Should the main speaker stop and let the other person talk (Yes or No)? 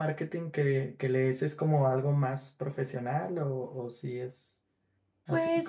Yes